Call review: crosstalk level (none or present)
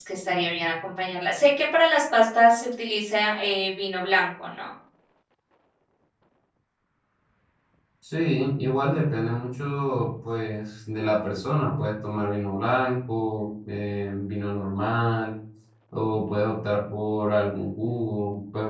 none